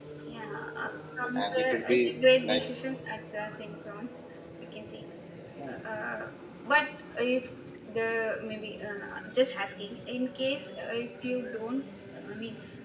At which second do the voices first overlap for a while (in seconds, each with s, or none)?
1.4 s